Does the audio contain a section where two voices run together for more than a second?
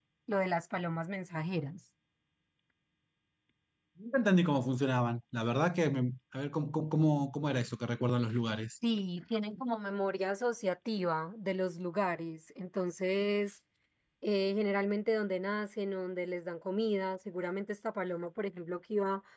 No

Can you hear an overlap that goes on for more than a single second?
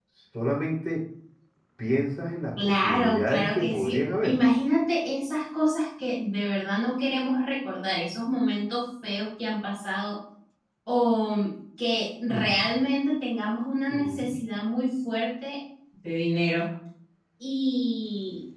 Yes, from 2.6 s

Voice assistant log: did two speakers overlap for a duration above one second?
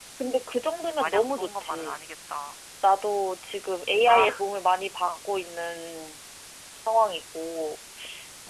Yes, from 0.8 s

